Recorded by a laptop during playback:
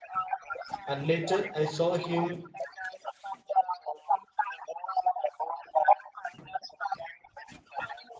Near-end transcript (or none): and later I saw him